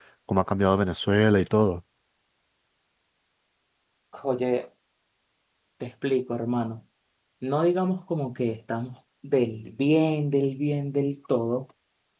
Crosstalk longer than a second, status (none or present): none